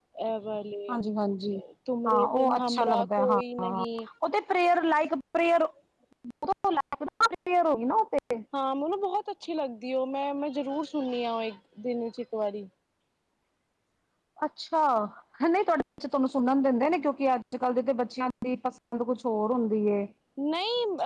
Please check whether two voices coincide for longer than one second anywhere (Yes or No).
Yes